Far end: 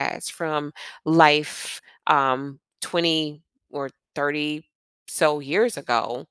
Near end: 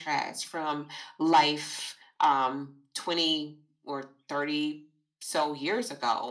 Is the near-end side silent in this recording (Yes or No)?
Yes